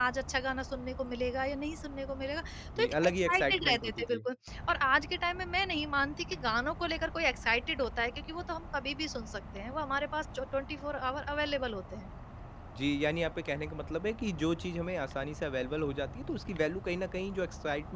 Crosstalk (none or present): present